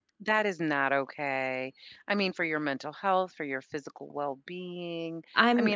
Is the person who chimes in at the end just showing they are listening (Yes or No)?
Yes